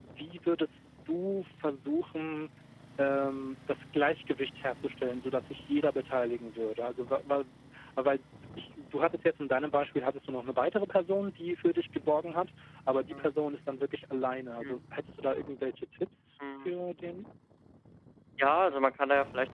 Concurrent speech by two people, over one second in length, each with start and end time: none

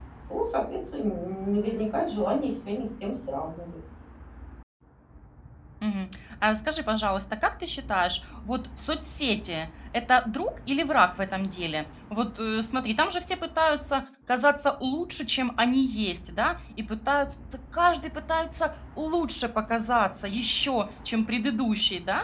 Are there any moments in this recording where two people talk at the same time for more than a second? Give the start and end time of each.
none

